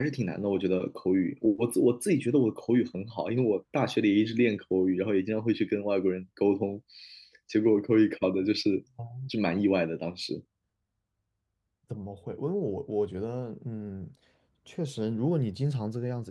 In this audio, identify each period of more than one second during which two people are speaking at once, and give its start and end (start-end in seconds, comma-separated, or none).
none